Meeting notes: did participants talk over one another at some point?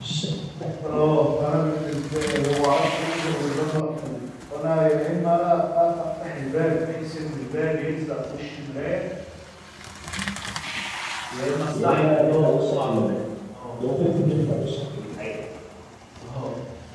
Yes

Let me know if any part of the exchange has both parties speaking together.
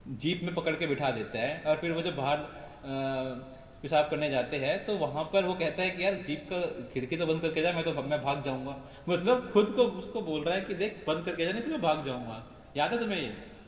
No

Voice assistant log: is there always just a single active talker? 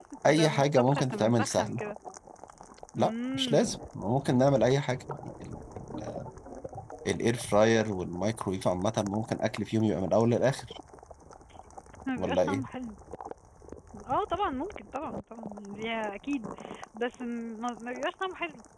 No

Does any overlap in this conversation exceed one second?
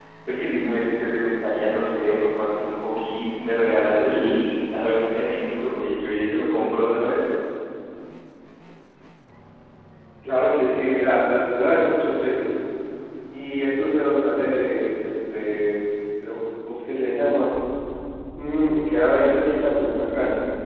No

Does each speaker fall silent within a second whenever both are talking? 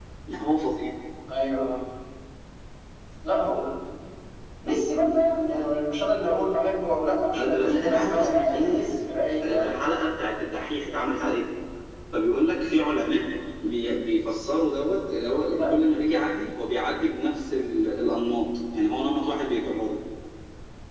No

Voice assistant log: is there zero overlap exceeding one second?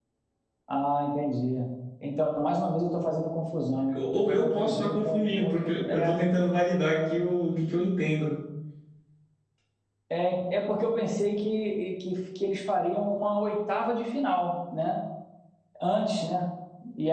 No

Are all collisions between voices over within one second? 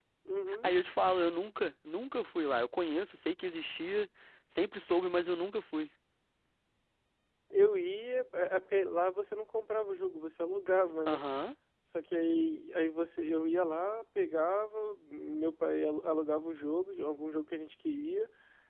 Yes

